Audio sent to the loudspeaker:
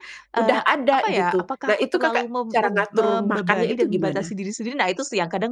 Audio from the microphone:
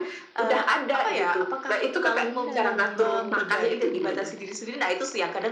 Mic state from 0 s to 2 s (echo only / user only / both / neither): echo only